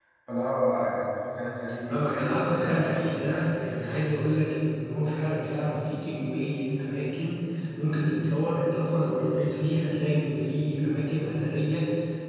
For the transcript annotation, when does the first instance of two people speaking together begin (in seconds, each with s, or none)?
1.9 s